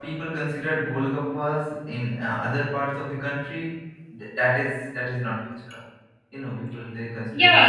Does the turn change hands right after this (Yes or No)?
Yes